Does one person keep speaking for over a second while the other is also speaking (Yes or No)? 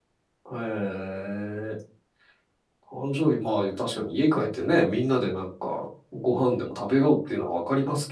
No